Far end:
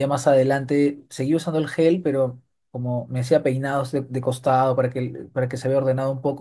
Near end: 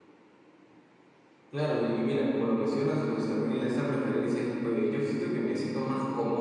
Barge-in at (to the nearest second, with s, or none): 1 s